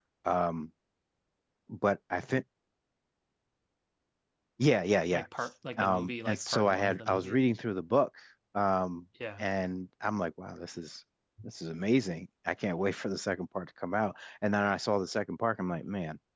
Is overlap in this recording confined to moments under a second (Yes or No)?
No